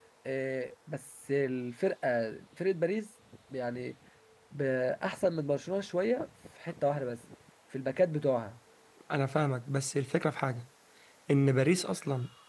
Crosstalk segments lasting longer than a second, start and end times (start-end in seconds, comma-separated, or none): none